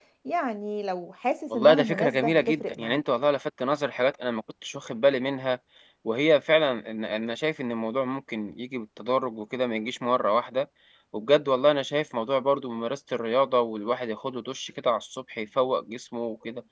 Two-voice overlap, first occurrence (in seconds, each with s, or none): 1.5 s